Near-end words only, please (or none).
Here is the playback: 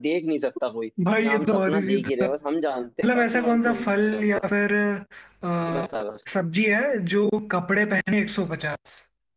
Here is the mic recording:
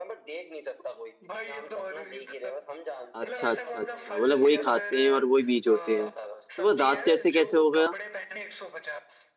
अच्छा अच्छा अच्छा मतलब वही खाते हैं और वही बीज होते हैं तो वो दांत जैसे कैसे हो गया